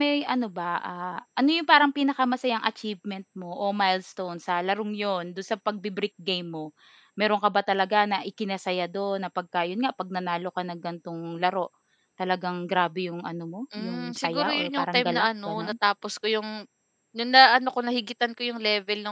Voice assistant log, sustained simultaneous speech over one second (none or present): present